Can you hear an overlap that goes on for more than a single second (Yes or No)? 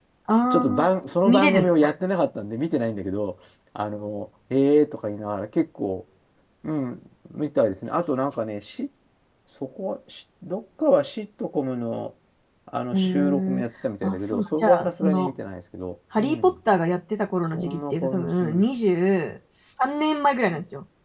Yes